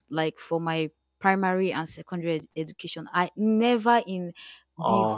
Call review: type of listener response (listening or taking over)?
listening